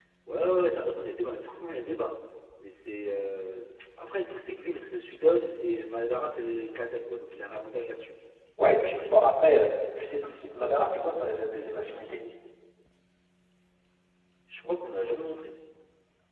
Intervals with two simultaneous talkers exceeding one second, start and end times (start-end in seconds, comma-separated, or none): none